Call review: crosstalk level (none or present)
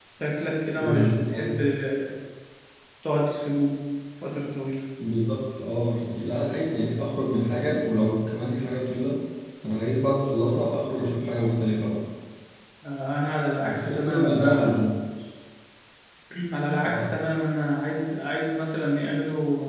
present